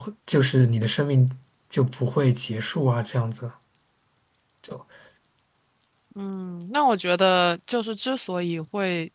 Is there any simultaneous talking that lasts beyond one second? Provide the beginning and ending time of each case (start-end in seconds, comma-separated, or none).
none